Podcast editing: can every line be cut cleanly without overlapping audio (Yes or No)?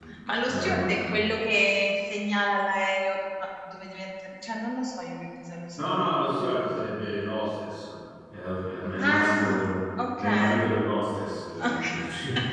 No